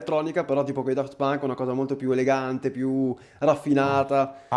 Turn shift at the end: Yes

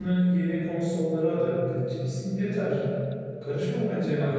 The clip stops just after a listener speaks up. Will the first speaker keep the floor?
No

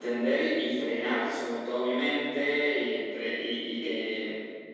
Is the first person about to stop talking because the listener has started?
No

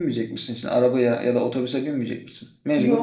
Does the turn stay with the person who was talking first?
No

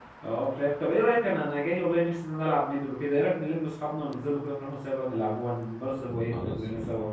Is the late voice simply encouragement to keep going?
No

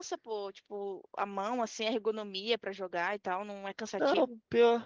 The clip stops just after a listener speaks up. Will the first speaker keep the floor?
No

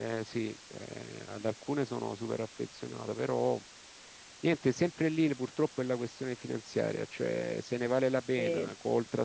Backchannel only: Yes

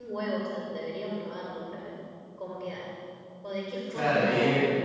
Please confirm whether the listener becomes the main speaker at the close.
Yes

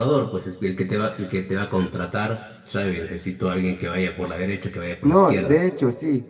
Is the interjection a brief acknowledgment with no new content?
No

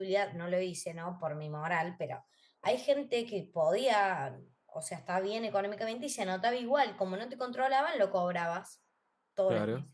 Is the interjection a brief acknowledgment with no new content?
Yes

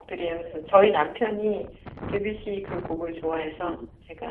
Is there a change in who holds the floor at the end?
Yes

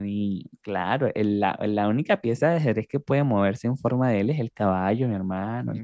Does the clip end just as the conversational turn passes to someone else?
Yes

